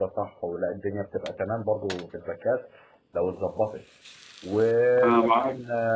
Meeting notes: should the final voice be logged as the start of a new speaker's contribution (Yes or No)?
No